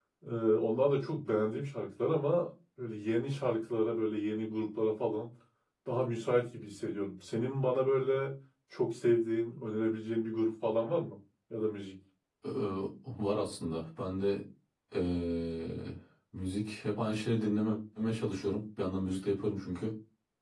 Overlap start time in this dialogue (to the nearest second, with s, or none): none